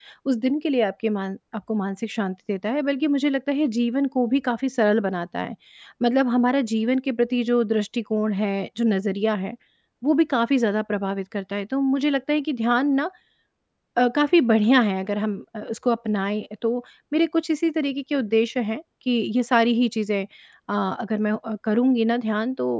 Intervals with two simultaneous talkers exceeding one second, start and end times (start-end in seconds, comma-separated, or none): none